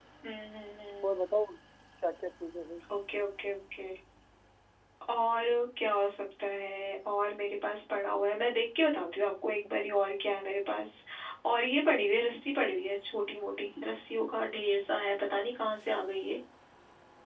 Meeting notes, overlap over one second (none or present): none